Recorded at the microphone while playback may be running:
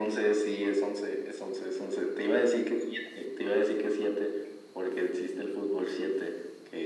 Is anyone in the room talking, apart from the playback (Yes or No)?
No